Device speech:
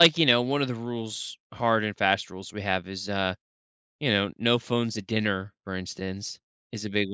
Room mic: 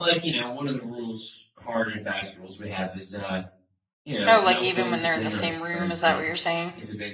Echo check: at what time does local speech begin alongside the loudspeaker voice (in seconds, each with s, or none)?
4.2 s